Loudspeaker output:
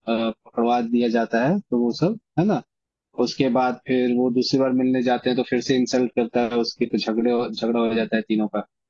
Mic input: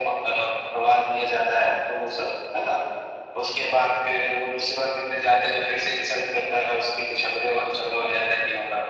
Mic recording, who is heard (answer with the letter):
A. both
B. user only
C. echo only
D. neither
C